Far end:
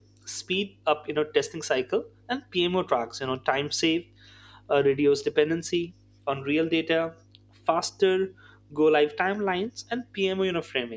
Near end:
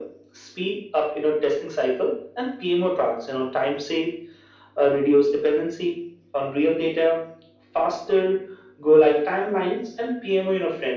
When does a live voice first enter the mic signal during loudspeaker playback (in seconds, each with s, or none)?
none